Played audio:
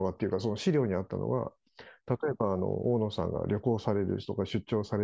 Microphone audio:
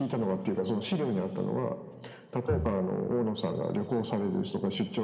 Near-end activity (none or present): present